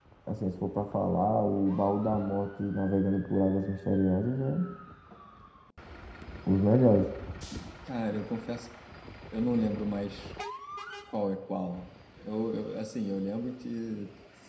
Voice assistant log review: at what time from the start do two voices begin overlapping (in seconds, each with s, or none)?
none